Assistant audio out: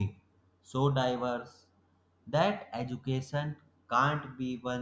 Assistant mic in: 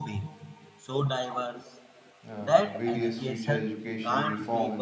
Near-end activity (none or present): present